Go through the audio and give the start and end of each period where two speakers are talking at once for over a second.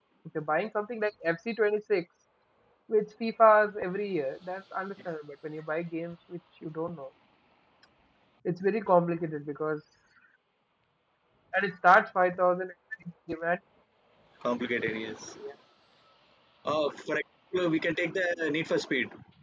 none

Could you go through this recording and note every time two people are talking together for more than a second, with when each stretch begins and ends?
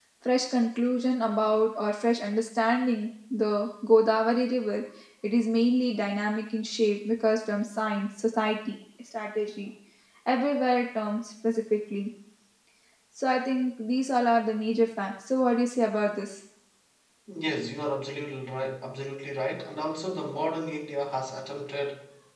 none

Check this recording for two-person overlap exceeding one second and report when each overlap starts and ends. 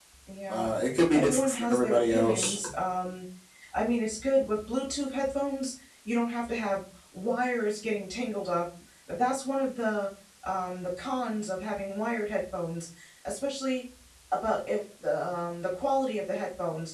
1.1-2.6

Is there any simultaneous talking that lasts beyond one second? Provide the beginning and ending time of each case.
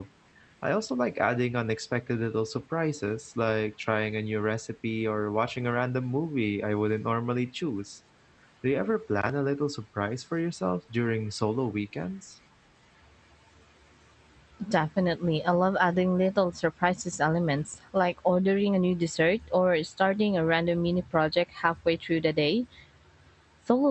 none

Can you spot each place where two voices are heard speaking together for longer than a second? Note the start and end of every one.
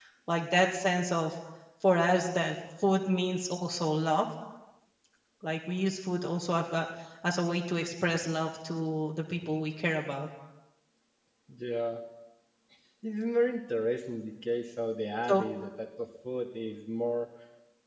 none

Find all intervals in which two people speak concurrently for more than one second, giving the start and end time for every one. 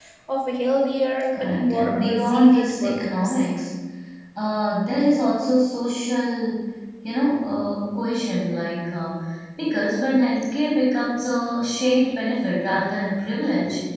1.3-3.4

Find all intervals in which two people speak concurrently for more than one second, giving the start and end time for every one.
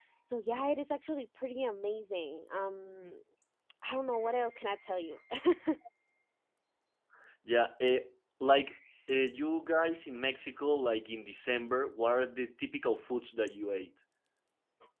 none

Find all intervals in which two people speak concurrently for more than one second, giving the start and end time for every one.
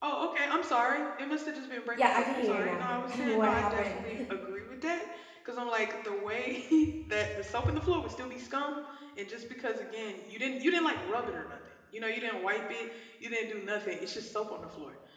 2.0-4.1

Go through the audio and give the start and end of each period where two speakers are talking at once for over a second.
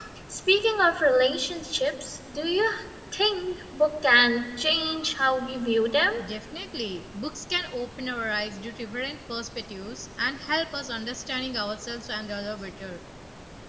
none

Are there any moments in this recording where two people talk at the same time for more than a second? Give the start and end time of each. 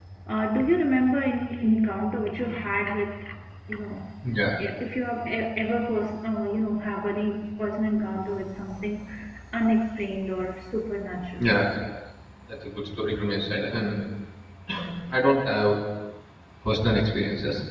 none

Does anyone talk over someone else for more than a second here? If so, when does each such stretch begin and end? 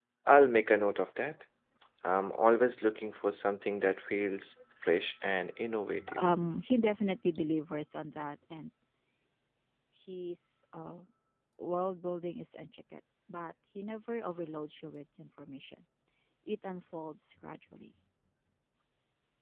none

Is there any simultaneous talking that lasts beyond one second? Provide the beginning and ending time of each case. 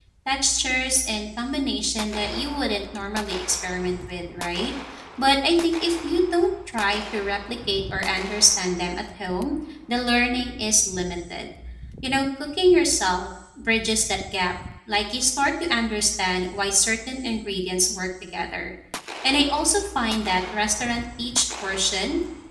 none

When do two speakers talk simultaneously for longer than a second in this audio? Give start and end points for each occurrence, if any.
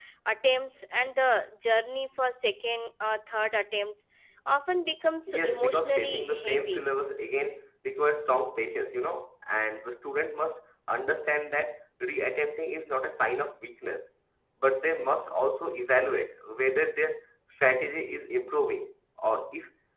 5.3-6.8

